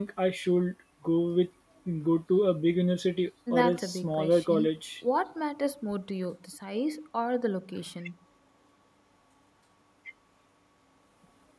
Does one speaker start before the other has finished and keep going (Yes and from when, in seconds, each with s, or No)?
Yes, from 3.5 s